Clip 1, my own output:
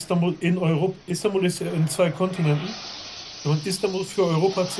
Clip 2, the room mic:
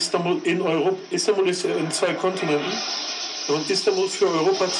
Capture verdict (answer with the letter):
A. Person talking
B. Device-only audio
B